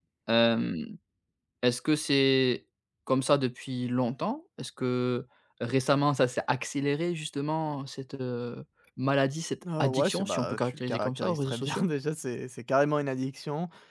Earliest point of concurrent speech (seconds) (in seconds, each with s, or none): 9.7 s